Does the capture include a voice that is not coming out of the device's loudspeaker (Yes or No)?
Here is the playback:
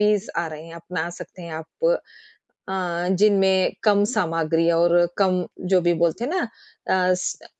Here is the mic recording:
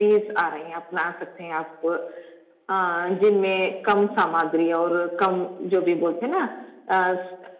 No